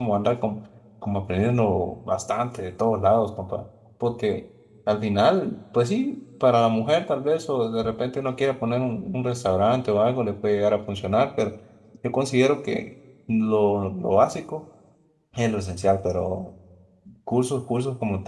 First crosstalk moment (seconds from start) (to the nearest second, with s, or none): none